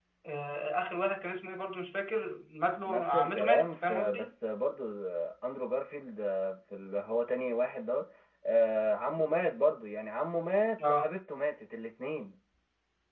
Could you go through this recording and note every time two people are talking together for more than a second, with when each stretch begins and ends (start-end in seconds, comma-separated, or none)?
2.9-4.3